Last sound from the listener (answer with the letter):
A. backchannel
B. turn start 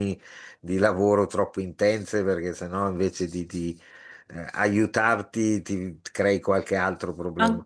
B